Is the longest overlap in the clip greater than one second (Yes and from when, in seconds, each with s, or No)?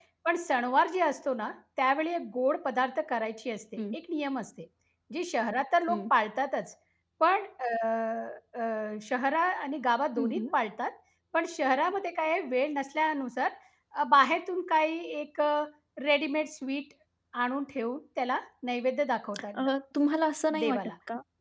No